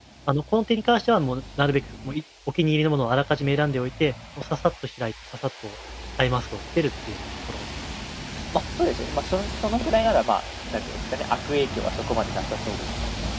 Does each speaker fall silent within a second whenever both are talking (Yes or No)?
Yes